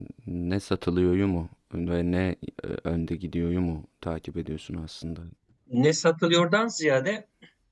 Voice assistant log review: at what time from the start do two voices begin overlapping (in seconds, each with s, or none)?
none